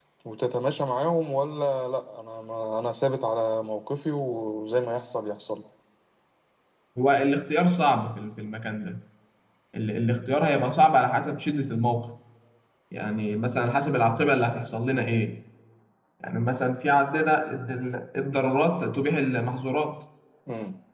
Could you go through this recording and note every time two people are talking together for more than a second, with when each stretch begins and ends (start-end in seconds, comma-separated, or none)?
none